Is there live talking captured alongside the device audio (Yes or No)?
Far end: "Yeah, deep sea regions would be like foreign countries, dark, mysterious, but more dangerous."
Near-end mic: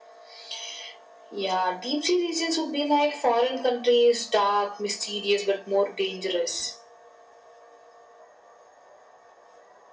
No